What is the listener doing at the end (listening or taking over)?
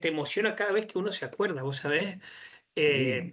listening